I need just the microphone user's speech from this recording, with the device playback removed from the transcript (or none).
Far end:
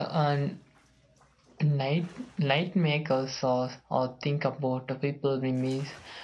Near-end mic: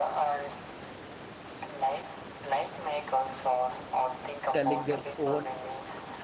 telling their own